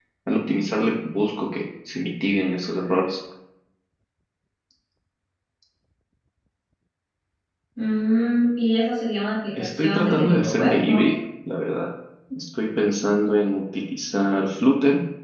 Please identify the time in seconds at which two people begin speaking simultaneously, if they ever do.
9.5 s

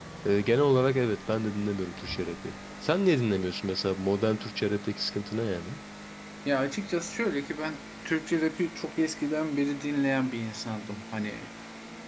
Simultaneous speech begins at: none

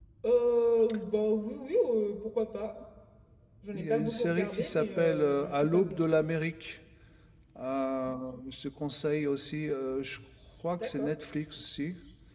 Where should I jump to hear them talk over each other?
3.7 s

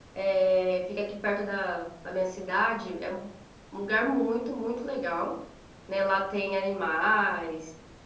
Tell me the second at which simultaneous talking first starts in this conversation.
none

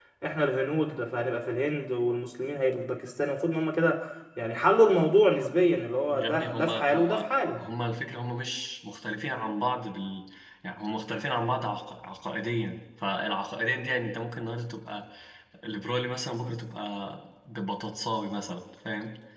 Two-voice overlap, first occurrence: 6.1 s

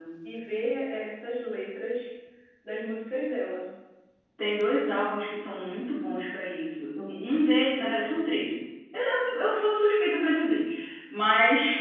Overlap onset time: none

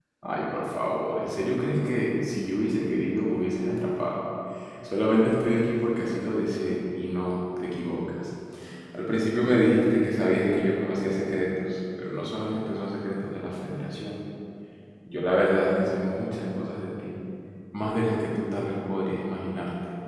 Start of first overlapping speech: none

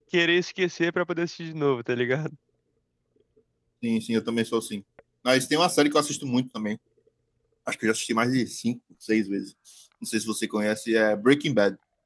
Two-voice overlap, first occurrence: none

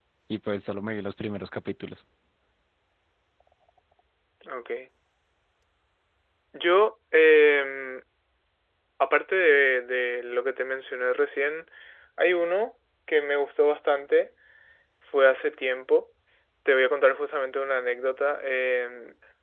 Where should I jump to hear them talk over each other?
none

